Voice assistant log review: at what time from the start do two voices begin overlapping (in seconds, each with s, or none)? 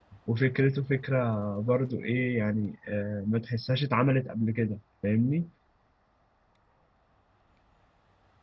none